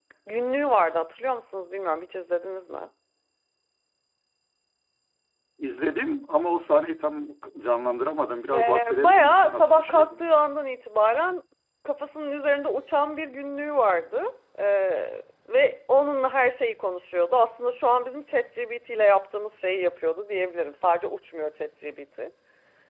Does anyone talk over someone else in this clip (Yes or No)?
Yes